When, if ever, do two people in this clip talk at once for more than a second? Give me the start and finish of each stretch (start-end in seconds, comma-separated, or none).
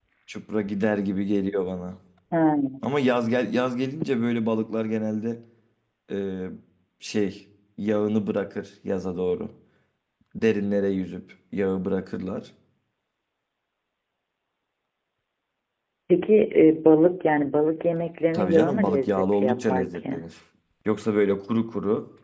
18.3-20.1